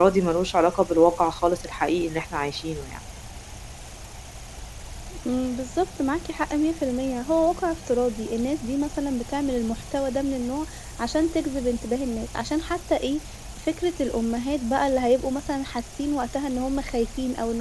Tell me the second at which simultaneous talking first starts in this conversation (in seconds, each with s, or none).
none